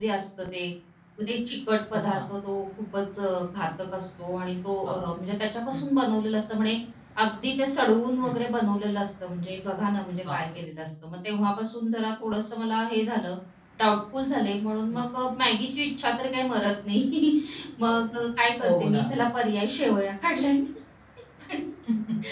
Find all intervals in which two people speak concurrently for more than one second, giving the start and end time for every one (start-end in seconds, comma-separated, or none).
none